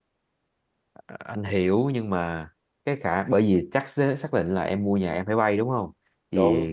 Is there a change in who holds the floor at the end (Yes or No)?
No